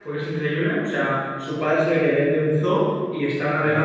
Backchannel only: Yes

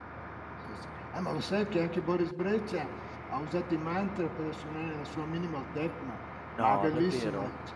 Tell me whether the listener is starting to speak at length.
No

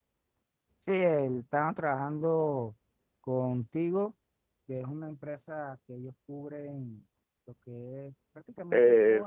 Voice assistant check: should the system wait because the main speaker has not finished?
No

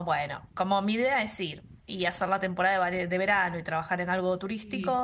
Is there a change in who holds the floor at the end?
No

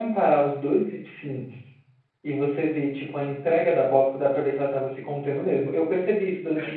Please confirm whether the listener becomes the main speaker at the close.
No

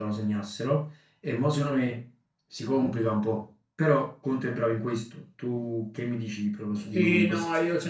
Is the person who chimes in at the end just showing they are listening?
No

